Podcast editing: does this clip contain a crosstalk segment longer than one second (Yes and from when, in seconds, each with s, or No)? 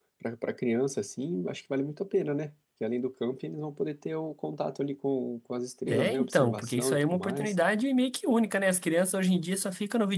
Yes, from 5.9 s